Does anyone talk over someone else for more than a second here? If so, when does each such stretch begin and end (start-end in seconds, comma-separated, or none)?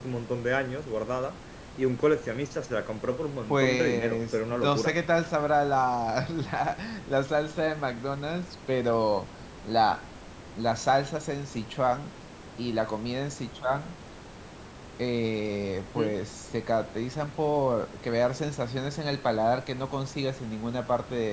3.5-4.9